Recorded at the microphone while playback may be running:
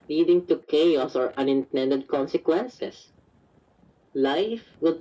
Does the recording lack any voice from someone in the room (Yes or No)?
Yes